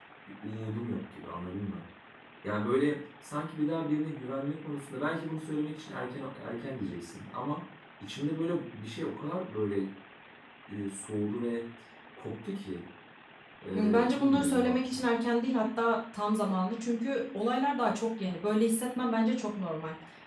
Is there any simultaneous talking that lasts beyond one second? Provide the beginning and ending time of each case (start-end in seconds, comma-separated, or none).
13.7-15.0